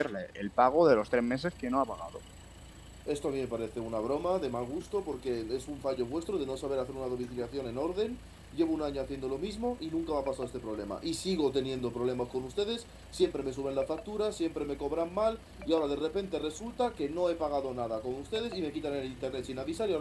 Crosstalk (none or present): none